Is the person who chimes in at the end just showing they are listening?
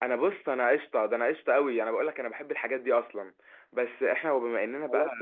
No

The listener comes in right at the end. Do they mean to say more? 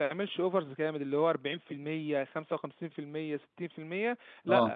No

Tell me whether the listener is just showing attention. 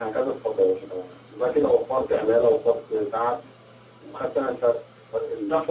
No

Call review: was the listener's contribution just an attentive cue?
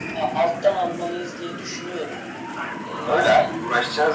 No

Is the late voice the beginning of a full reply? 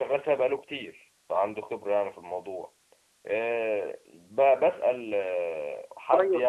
No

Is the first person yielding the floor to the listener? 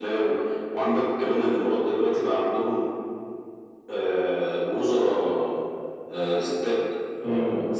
Yes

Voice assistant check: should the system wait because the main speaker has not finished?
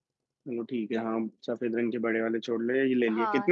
No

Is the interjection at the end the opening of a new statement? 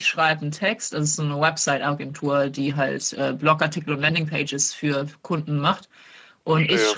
No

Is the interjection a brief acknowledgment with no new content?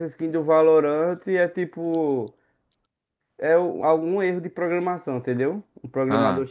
Yes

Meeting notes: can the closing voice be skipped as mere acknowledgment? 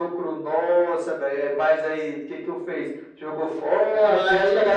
No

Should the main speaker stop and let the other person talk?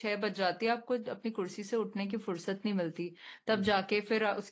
No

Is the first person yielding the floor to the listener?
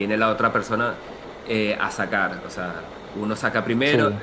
No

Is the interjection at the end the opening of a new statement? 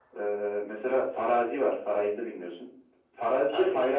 No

